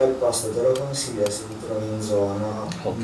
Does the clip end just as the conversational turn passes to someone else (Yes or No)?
Yes